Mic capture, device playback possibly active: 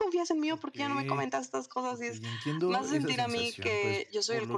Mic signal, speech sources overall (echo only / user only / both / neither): both